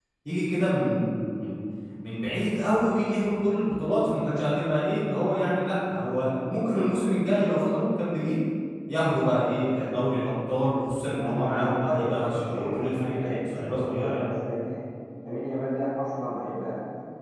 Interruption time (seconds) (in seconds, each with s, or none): 11.1 s